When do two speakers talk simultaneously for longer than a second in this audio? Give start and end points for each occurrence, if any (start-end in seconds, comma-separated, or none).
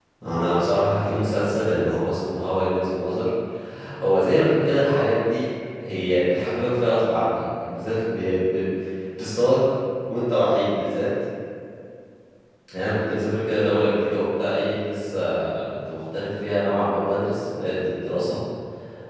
1.0-2.4